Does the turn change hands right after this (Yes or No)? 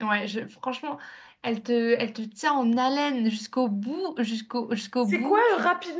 Yes